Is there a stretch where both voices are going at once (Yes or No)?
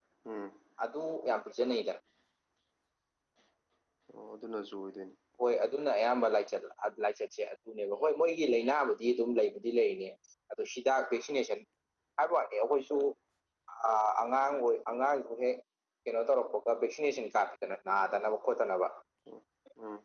No